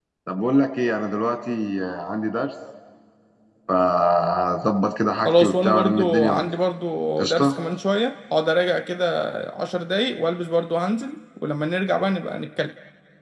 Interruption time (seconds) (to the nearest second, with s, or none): 5 s